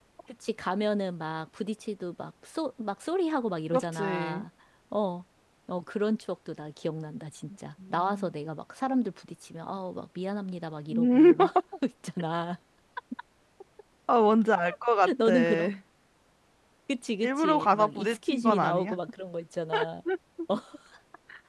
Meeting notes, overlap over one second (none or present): present